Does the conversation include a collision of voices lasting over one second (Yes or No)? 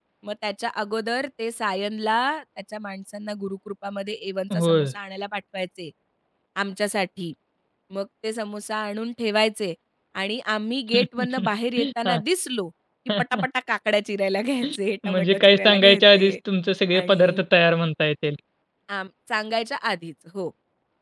Yes